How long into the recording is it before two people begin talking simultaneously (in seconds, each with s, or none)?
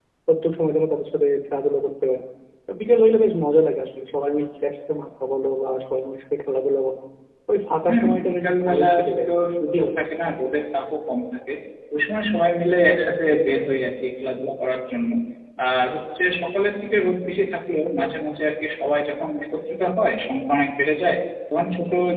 7.9 s